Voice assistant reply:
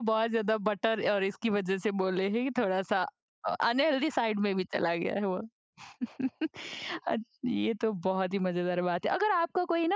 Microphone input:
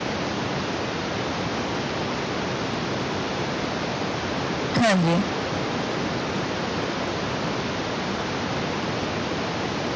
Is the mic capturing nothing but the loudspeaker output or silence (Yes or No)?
No